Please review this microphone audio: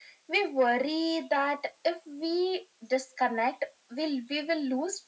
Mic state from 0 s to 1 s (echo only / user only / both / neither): echo only